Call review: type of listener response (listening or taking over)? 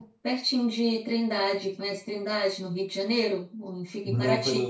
taking over